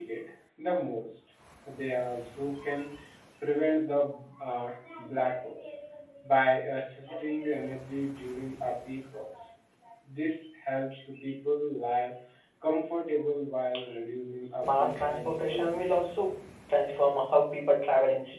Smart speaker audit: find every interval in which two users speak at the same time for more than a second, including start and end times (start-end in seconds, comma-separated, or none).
14.4-16.0